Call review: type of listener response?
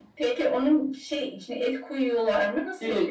taking over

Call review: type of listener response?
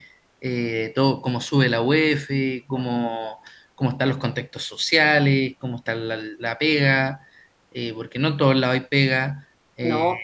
taking over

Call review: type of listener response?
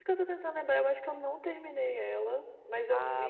taking over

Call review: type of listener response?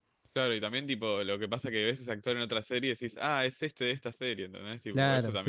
taking over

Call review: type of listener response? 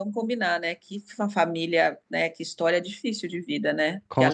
listening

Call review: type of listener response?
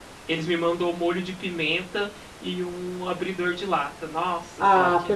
taking over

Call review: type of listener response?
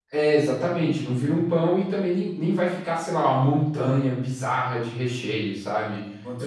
listening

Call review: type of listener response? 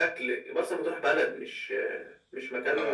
taking over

